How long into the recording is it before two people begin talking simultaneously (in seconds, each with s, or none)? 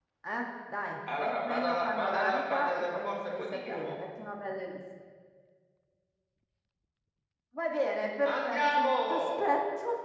1.2 s